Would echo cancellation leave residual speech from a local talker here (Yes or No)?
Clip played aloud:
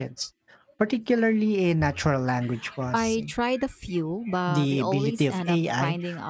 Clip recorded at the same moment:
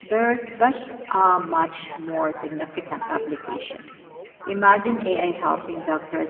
Yes